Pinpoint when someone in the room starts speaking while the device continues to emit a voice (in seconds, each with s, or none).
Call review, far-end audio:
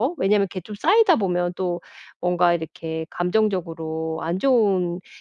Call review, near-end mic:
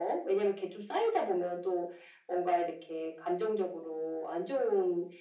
none